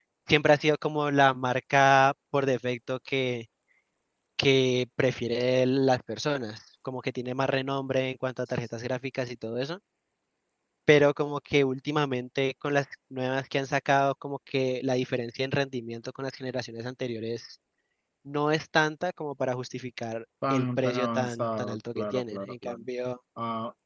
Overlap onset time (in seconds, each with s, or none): 20.4 s